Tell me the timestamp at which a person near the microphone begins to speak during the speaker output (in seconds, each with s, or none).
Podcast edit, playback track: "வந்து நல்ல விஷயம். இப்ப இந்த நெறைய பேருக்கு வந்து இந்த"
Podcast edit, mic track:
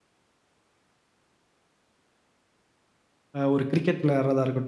3.4 s